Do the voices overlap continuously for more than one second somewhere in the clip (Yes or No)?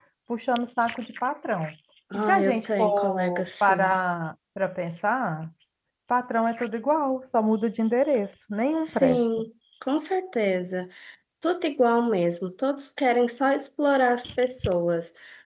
Yes